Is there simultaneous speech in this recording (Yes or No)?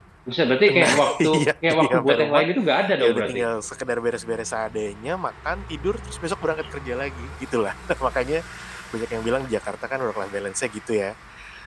Yes